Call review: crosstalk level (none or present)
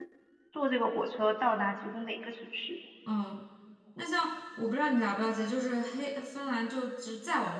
none